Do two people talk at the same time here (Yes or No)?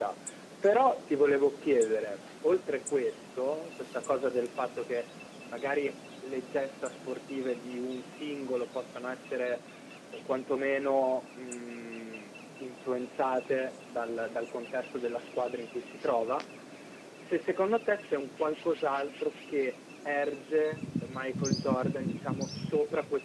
No